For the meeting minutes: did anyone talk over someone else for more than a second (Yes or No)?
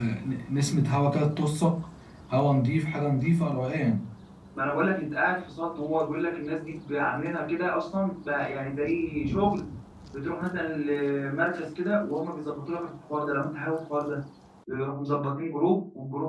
No